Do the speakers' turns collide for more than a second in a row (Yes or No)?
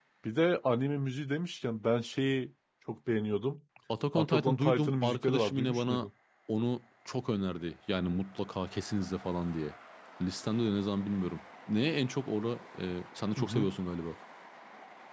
Yes